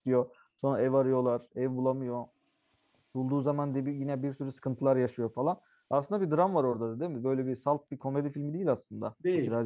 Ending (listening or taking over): taking over